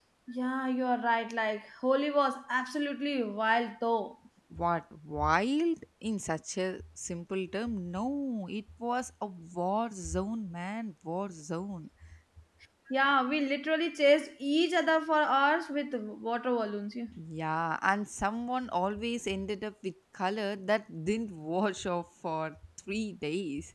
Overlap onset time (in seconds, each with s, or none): none